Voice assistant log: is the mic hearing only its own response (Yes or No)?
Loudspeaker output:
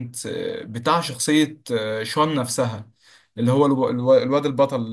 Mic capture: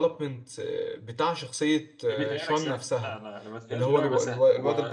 No